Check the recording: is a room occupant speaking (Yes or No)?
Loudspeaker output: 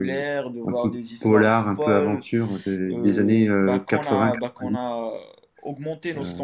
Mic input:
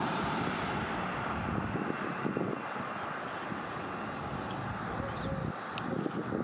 No